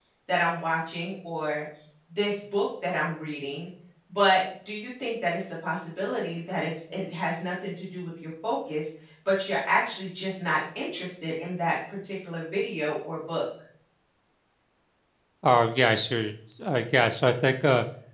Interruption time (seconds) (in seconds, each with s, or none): none